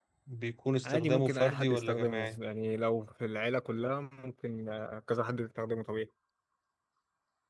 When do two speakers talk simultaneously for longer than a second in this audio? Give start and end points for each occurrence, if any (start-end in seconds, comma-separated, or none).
0.8-2.4